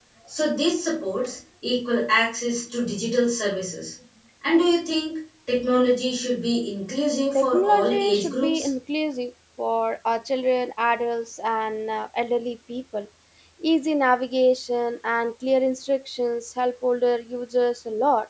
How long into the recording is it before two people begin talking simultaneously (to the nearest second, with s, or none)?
7 s